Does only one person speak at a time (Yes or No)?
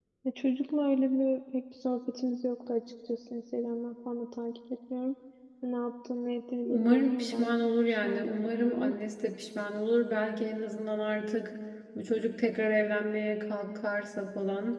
No